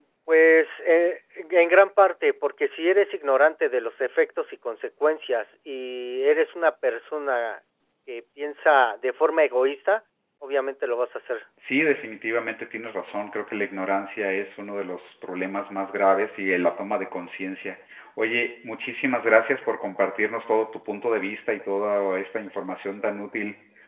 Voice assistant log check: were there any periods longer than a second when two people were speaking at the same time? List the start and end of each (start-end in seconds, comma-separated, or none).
none